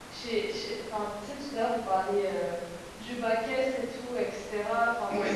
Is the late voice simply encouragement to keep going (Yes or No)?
Yes